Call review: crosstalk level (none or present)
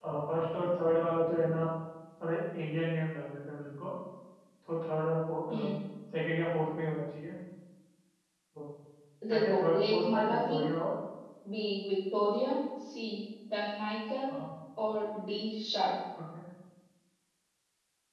present